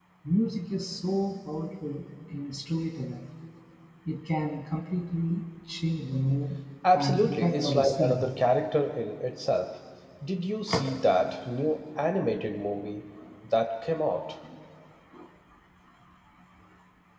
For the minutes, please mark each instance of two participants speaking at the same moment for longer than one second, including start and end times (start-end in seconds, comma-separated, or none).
6.9-8.3